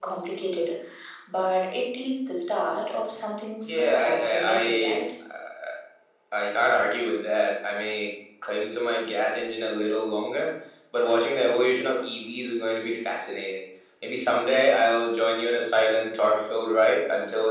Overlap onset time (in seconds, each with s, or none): 3.6 s